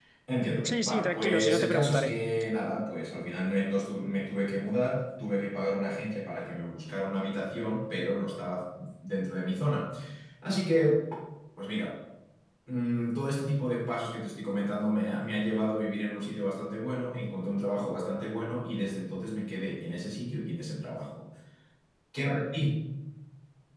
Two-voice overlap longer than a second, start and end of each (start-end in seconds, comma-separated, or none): 0.6-2.1